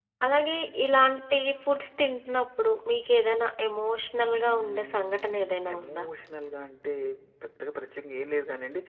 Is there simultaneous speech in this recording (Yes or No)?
Yes